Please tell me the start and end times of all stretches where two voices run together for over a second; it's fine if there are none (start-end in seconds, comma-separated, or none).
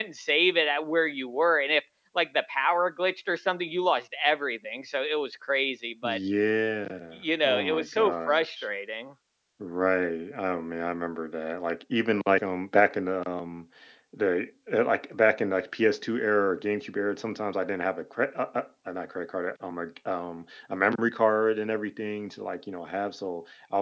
7.1-8.6